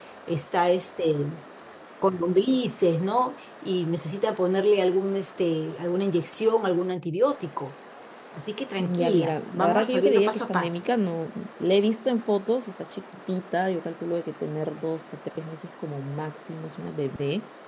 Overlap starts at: 8.8 s

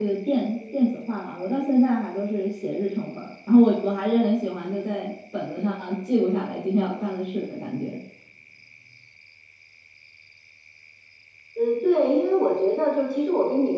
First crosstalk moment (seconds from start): none

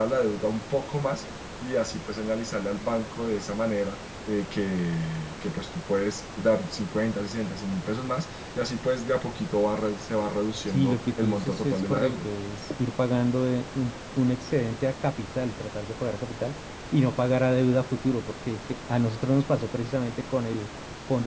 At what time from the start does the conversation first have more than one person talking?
10.7 s

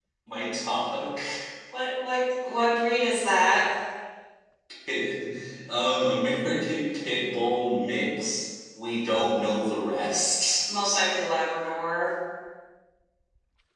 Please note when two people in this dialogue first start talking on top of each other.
none

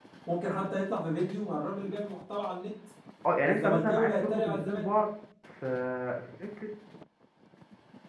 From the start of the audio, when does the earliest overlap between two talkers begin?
3.5 s

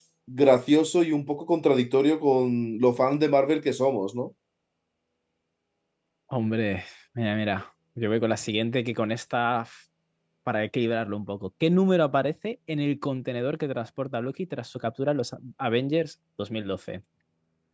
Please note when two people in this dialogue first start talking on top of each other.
none

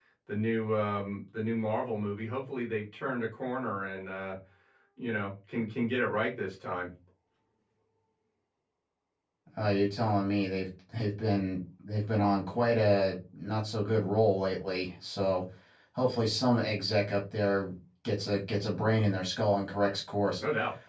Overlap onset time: none

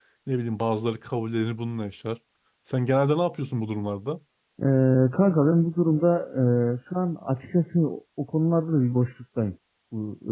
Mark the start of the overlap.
none

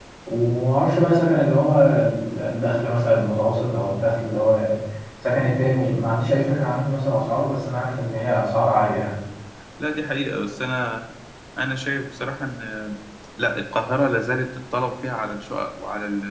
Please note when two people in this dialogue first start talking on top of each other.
none

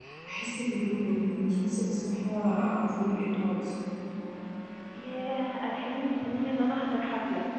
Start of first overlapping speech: none

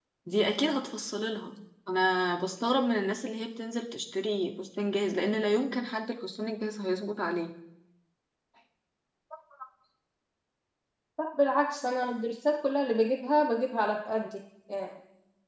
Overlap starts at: none

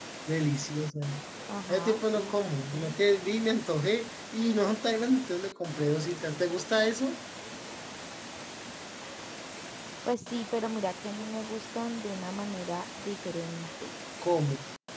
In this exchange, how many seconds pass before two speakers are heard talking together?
1.7 s

